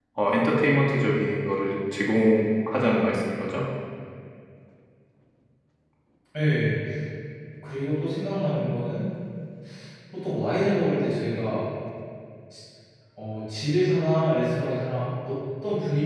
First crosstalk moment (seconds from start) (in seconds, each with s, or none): none